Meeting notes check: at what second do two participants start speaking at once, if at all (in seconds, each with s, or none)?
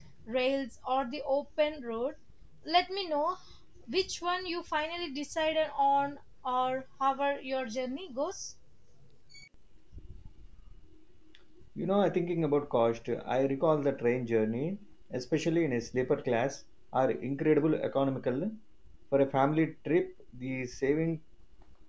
none